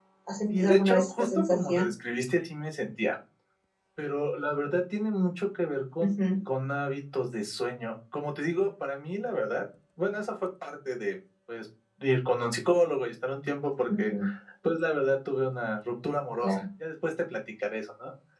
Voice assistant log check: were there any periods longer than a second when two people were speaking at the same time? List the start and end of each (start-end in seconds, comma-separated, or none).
0.5-1.9